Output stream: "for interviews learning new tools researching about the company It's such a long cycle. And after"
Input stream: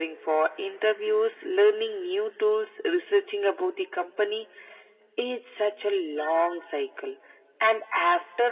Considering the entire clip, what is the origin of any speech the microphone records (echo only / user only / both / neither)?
echo only